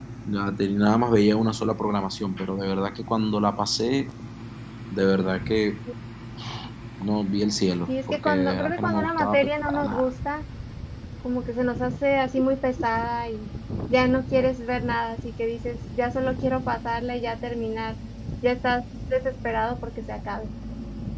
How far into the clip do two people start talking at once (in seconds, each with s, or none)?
7.9 s